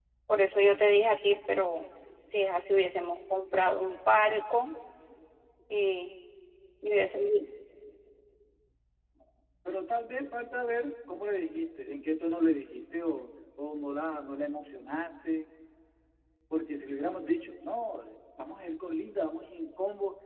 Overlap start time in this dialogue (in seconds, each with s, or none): none